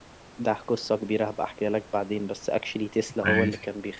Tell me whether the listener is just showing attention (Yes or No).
Yes